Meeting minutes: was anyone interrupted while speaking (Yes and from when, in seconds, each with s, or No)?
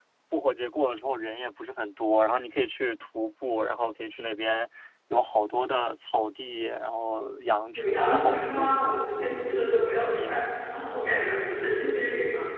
Yes, from 7.7 s